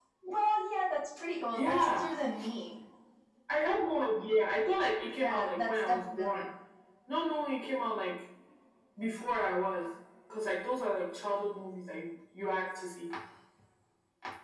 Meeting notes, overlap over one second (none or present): present